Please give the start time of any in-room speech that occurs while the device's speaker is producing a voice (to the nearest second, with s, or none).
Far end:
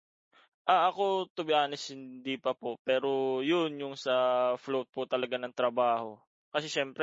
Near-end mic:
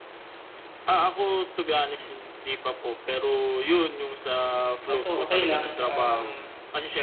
5 s